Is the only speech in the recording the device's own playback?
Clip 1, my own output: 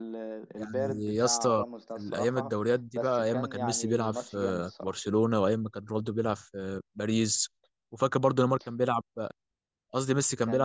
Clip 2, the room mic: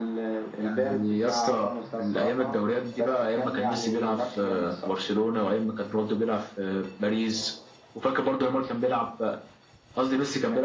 Yes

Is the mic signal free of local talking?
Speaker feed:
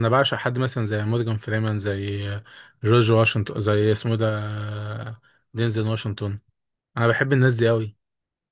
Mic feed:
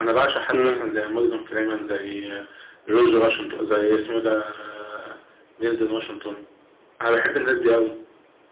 No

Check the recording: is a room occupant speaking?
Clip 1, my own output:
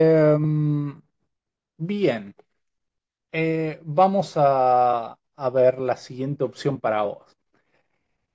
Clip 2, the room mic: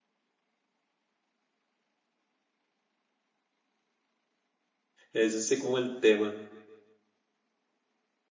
Yes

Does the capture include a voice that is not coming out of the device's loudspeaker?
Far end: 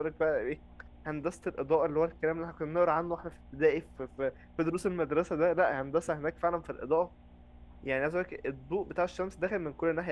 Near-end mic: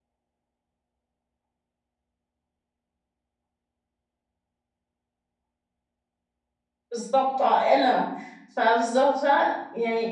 Yes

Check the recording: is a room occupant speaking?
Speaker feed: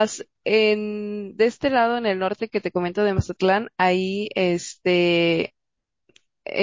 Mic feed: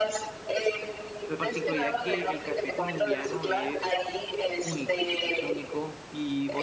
Yes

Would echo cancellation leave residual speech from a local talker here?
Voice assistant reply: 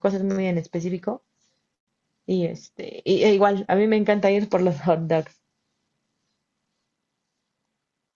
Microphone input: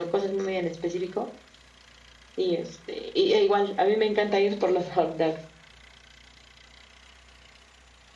No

